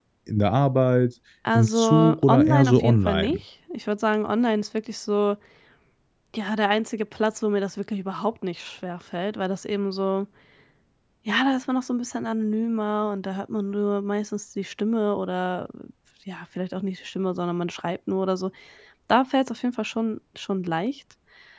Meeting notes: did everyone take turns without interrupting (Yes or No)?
No